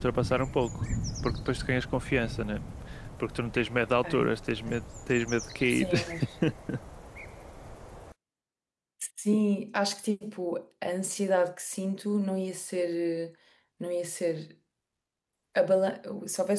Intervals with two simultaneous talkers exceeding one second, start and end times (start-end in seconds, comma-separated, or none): none